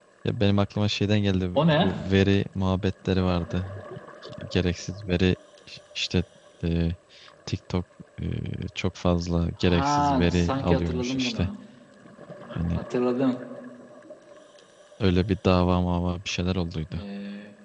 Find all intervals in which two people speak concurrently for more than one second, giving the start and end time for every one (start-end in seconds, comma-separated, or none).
9.6-11.5